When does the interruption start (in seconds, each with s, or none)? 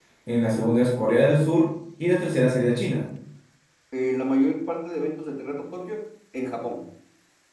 none